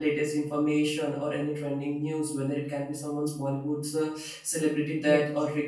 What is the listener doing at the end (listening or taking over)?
listening